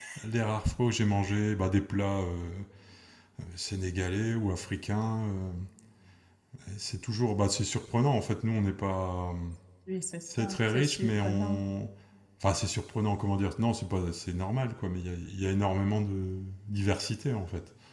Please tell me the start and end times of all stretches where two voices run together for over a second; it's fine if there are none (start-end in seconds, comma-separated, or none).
10.3-11.6